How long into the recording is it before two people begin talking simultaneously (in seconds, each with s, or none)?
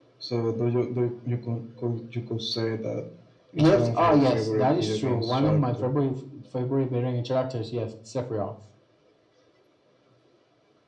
3.6 s